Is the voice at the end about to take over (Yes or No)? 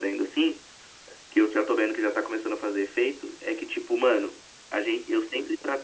No